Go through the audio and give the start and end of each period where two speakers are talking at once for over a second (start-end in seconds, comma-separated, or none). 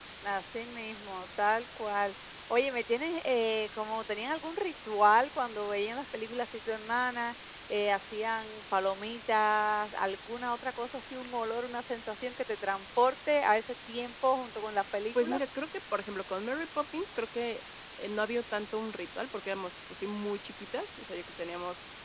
none